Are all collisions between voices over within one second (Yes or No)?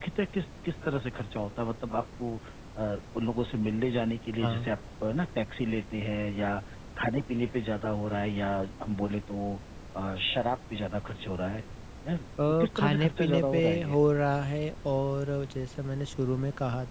No